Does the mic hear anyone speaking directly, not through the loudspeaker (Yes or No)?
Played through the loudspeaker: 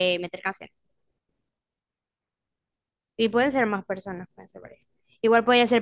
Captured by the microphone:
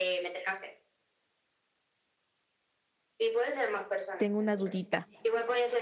Yes